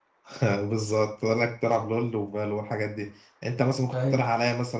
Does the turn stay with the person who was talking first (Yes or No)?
Yes